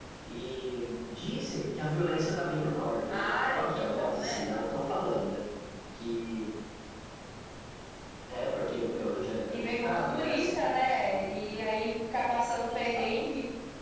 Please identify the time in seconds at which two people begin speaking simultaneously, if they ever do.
3 s

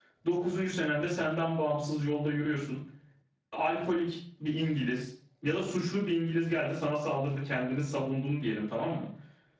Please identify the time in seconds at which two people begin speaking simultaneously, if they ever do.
none

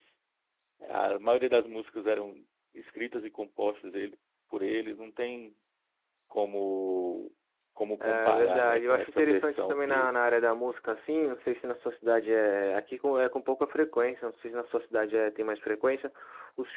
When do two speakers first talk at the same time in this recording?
8 s

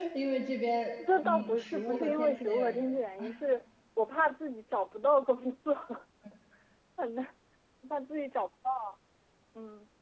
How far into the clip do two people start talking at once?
1 s

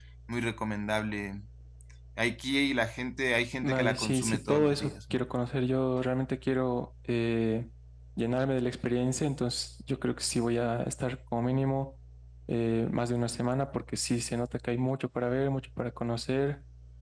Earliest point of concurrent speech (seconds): 4 s

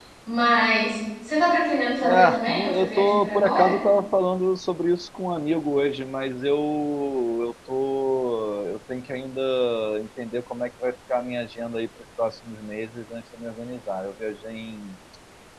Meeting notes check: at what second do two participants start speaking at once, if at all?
2 s

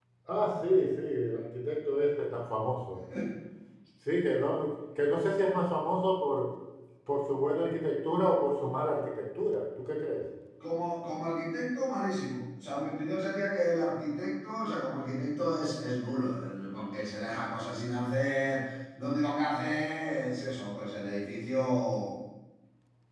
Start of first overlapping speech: none

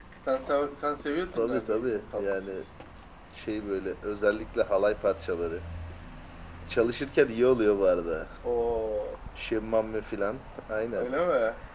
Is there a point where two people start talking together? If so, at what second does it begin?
1 s

